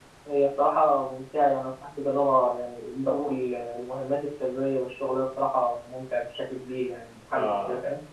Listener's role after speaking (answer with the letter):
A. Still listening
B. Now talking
B